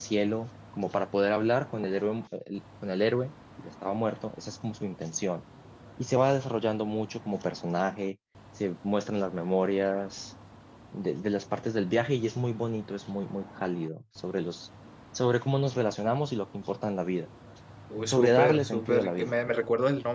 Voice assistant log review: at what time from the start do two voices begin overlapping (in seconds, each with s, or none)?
18.0 s